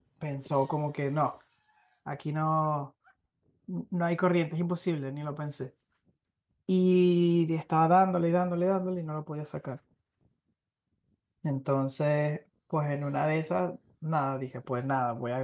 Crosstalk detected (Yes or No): No